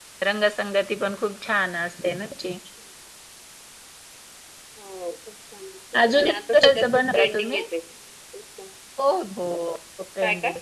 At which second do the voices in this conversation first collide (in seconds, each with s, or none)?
6.1 s